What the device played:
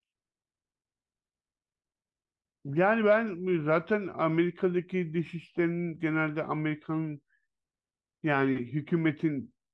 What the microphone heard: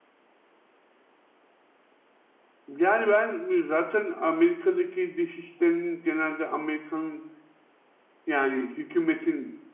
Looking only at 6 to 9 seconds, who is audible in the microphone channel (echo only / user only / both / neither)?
echo only